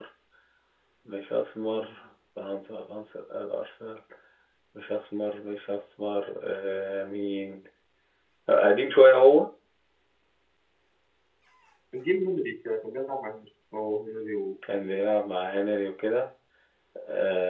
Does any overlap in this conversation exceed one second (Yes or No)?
No